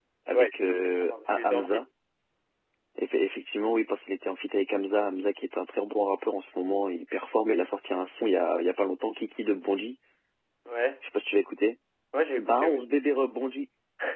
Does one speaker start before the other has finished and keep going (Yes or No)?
Yes